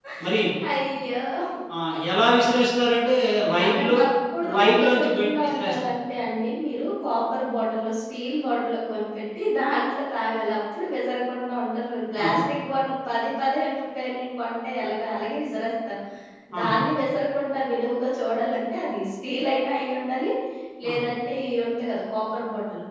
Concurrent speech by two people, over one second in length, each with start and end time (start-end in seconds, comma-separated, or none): 4.6-5.8